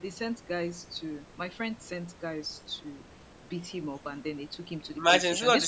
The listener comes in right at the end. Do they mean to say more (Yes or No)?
Yes